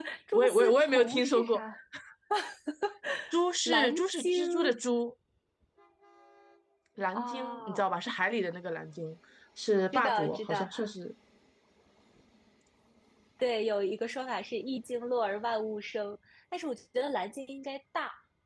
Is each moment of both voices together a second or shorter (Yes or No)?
No